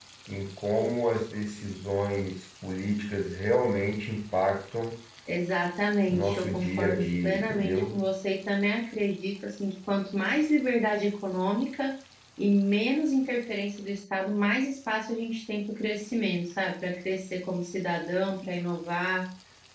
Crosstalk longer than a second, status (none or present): present